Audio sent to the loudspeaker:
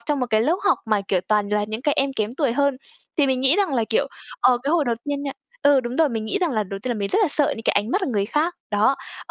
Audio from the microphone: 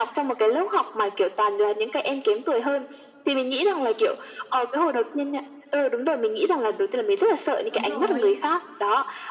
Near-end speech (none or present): present